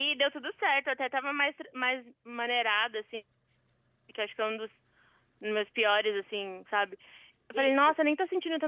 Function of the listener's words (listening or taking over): listening